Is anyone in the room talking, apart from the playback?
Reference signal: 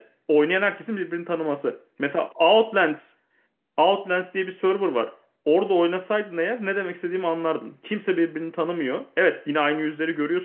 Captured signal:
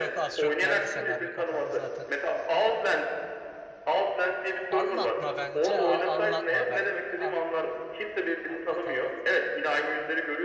Yes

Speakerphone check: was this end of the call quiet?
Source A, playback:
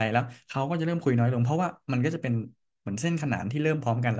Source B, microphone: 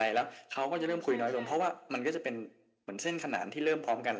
No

